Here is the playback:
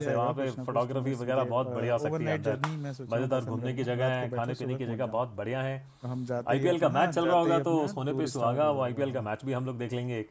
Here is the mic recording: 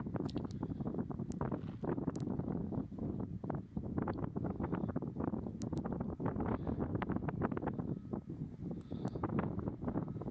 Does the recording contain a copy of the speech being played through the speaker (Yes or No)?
No